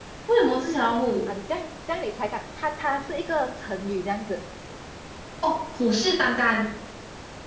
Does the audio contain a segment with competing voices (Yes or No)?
No